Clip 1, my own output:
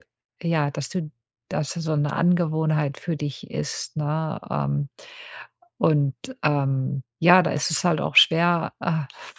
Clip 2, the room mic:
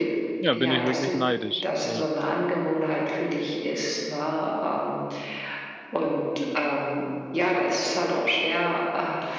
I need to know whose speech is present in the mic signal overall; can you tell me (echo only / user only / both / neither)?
both